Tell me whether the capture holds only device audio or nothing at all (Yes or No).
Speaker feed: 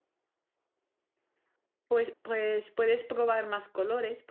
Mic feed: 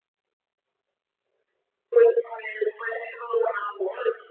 Yes